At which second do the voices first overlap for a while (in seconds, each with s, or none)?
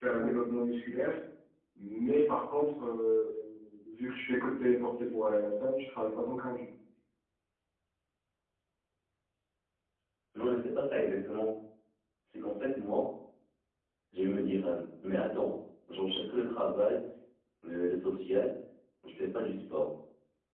none